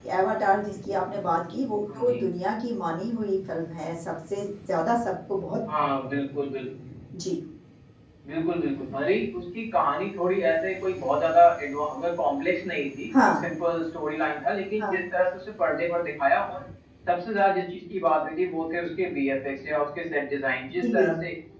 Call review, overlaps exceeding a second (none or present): none